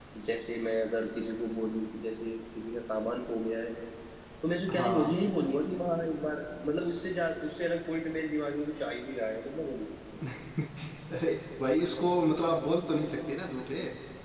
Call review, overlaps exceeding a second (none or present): none